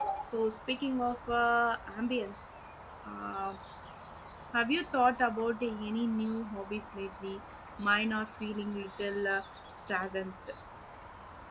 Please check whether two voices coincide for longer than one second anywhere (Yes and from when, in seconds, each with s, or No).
No